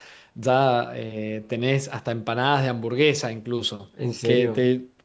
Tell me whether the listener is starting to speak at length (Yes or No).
No